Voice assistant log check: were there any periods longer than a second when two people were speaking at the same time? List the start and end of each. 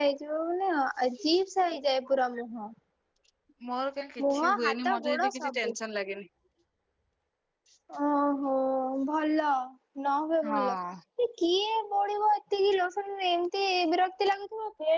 4.3-5.7

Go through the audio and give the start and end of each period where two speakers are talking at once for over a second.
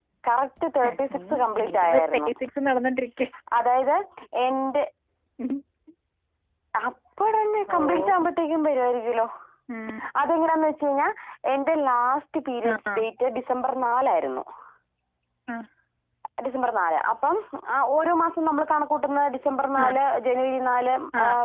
0.9-2.3

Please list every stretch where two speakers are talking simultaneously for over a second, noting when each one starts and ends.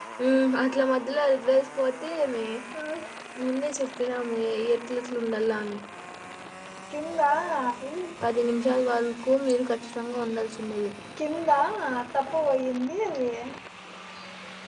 none

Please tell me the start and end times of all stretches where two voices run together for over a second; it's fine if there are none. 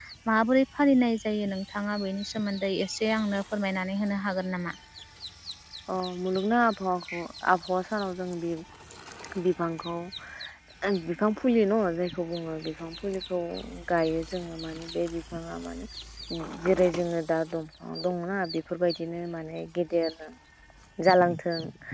none

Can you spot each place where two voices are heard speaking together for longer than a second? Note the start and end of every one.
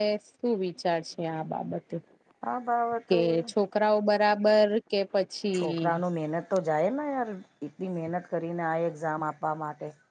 none

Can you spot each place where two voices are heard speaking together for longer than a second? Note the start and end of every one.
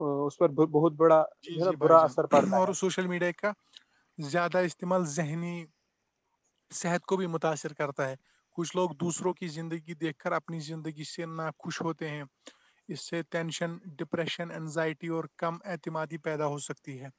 1.5-2.7

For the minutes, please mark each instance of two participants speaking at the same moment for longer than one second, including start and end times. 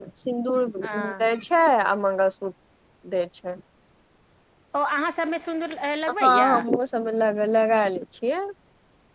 none

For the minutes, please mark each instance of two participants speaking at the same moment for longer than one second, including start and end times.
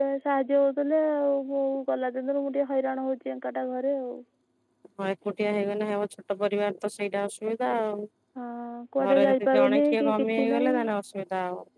9.1-10.7

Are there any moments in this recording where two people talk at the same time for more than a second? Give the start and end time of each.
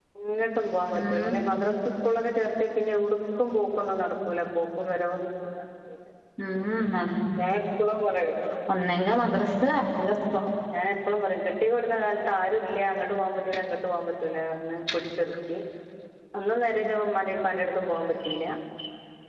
none

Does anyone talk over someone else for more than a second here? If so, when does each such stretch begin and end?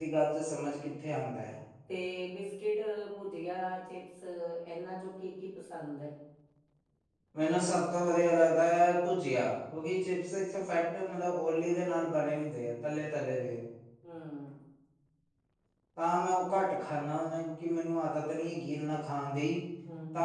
none

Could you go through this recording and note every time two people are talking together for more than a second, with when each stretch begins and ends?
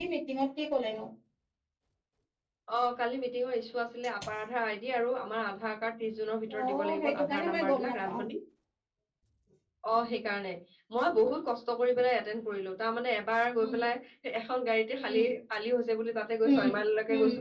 6.6-8.2

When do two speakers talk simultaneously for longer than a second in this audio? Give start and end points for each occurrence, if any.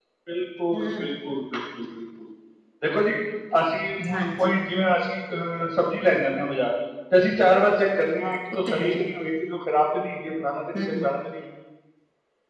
none

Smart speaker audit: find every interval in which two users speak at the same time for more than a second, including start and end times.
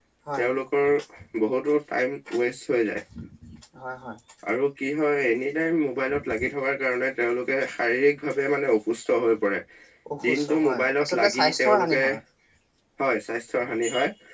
10.3-12.0

